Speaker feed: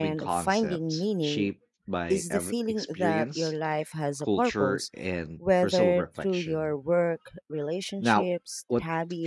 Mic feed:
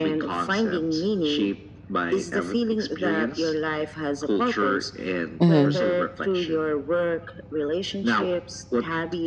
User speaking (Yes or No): Yes